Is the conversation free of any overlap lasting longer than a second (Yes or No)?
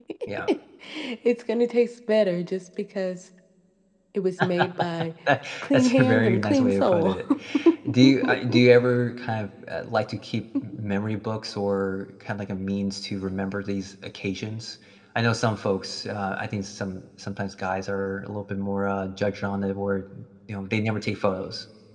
No